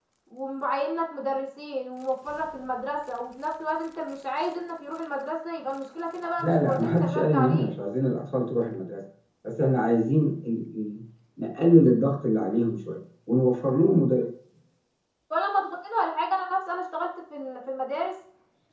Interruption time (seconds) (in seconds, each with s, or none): 6.4 s